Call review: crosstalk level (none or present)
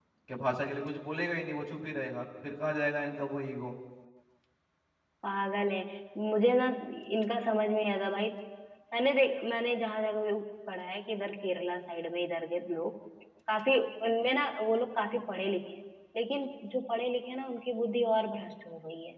none